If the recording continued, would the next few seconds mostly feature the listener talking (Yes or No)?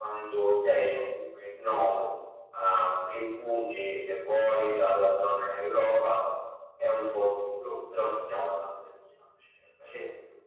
No